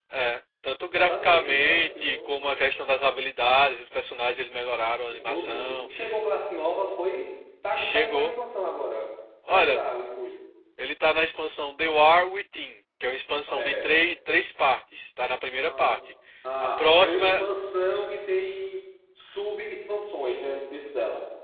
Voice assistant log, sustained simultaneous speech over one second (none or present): present